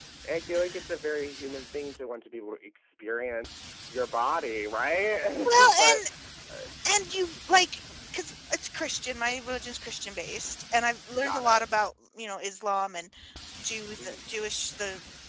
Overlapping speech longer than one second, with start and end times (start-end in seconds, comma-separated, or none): none